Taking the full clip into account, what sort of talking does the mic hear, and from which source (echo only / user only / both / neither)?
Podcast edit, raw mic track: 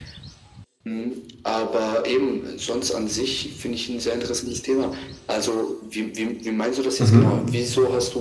both